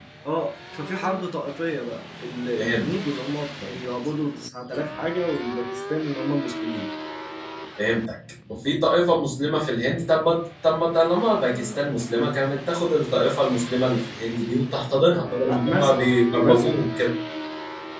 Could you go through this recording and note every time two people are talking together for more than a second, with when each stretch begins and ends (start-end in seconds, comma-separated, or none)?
15.5-16.8